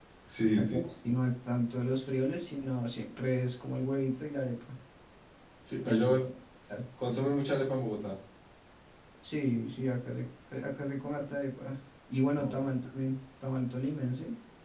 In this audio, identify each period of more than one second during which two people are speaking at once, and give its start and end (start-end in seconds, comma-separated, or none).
none